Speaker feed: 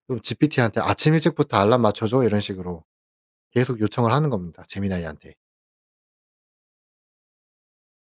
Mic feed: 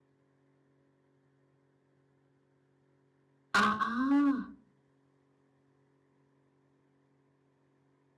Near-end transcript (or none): 아.